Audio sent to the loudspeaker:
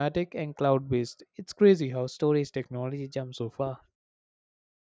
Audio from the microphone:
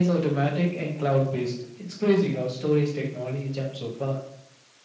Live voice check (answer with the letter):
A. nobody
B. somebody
A